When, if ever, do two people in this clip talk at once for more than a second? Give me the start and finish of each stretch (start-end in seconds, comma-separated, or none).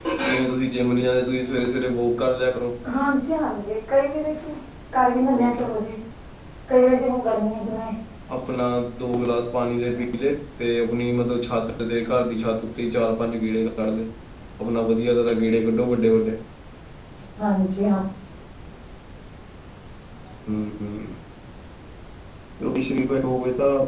none